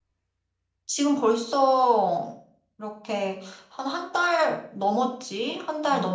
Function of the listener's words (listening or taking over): listening